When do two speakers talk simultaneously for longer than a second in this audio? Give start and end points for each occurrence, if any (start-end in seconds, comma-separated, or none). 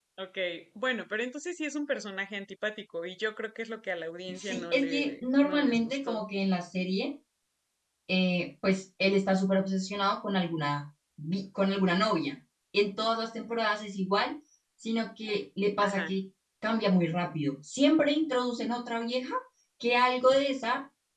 4.3-6.2